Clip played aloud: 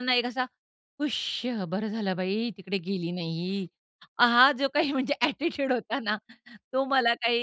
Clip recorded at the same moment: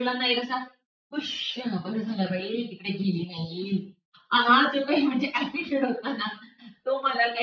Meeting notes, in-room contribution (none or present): none